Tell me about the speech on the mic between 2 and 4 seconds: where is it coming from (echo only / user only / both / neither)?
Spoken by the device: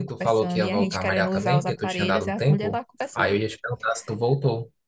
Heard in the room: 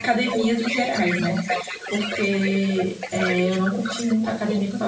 both